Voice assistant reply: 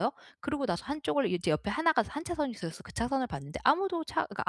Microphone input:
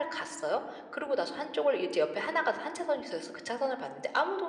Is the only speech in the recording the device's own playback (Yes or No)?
Yes